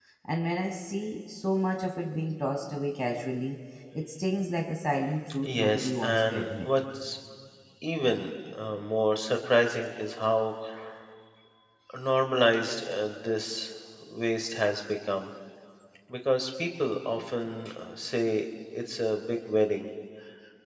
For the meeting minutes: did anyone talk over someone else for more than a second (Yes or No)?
Yes